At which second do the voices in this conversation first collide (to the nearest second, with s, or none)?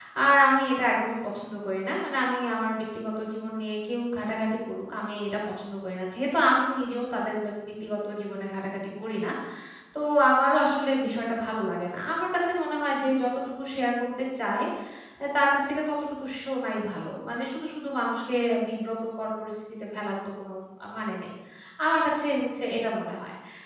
none